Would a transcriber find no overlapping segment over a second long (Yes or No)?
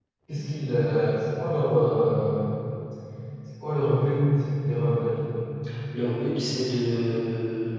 Yes